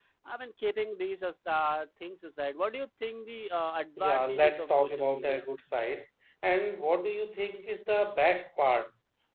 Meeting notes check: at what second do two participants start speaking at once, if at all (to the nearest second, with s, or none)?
4 s